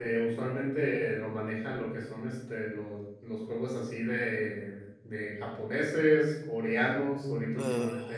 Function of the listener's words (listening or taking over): listening